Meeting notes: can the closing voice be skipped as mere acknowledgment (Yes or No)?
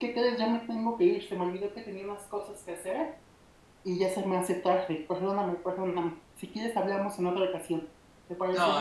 No